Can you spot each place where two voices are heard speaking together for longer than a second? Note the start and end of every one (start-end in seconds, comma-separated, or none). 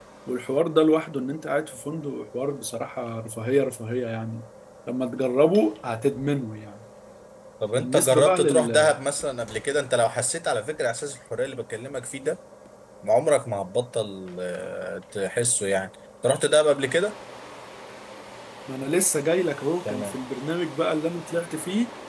7.8-8.9